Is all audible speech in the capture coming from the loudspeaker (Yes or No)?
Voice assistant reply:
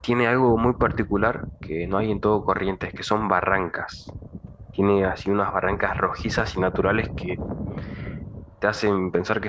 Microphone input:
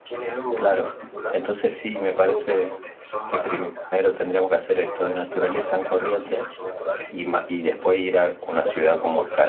No